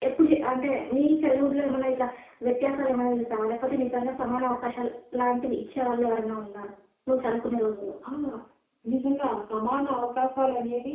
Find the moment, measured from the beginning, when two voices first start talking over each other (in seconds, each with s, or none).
none